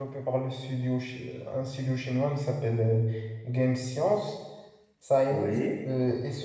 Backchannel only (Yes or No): Yes